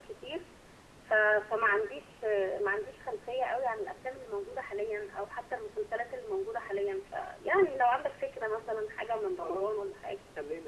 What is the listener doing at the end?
taking over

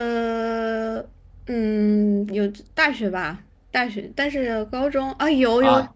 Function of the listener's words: taking over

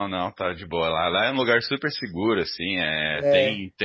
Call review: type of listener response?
listening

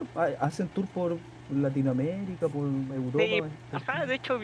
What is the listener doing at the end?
taking over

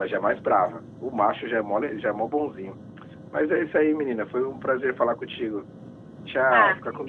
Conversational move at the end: taking over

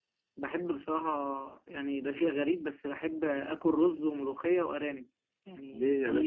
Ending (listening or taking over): taking over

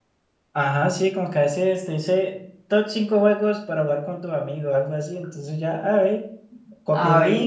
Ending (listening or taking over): listening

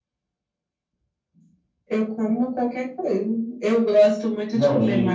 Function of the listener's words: taking over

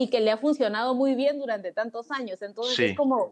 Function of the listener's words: listening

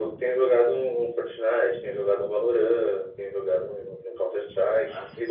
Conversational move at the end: taking over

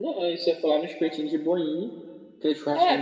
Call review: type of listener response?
taking over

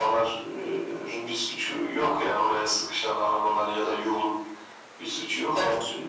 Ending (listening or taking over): listening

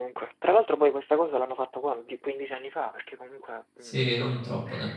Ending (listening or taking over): taking over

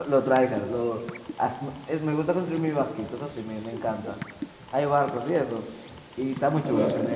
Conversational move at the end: taking over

